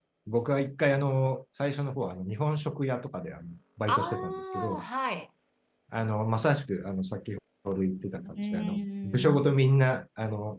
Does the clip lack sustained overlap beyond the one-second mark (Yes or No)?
No